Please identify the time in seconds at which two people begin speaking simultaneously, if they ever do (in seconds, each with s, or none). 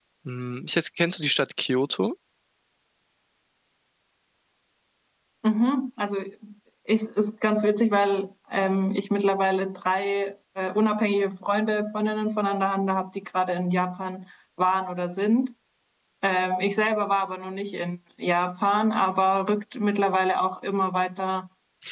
none